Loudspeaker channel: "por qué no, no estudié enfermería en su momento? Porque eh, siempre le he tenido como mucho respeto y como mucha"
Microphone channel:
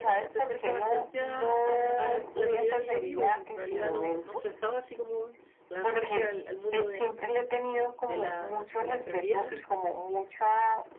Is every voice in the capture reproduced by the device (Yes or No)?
No